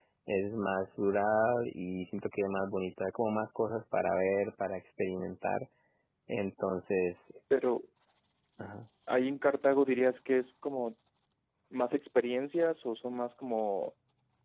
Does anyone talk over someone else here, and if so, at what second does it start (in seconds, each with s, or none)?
none